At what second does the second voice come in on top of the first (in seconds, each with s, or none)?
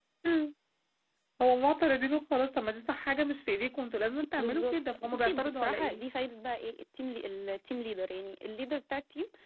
4.4 s